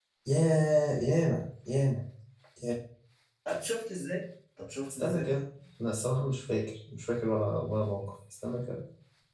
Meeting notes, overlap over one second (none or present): none